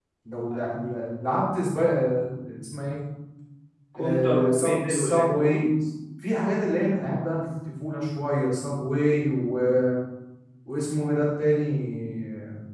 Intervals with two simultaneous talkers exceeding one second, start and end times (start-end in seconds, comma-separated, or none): 4.0-5.6